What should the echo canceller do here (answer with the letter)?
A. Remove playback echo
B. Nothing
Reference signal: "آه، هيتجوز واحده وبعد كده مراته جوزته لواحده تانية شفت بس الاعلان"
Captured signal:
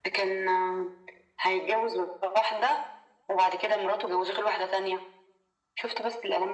A